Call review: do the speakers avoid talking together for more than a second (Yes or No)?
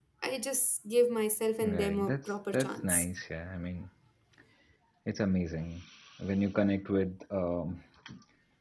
No